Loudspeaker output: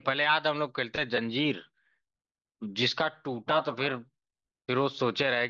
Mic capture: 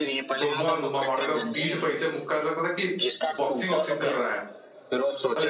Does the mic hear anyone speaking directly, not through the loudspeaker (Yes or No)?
Yes